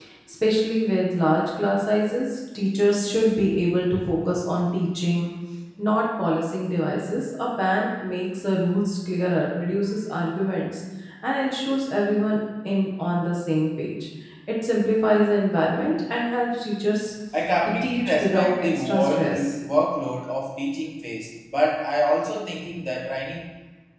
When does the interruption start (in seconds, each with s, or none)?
17.8 s